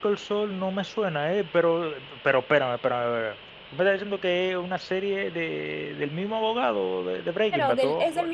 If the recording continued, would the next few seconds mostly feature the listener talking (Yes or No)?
Yes